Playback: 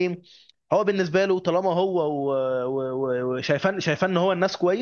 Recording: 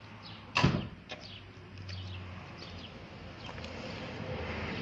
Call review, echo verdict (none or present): none